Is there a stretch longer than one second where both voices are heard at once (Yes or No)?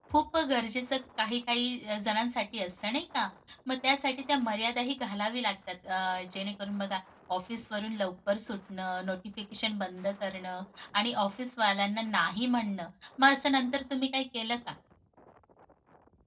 No